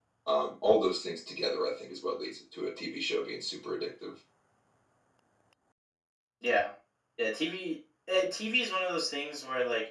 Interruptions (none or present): none